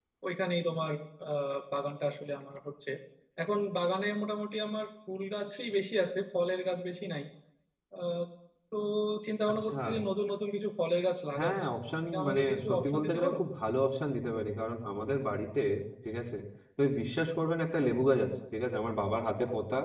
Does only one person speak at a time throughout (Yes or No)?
No